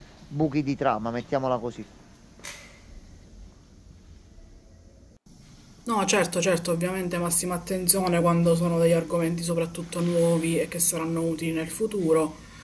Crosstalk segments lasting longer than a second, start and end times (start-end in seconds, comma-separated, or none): none